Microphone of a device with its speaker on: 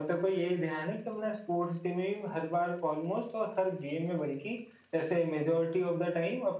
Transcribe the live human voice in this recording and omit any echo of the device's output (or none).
none